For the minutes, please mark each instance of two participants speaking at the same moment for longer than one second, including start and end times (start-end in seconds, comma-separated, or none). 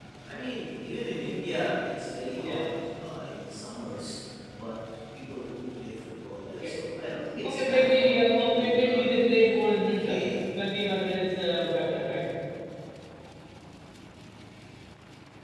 7.4-9.1